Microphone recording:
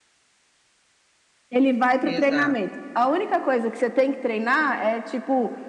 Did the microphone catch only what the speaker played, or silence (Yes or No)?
No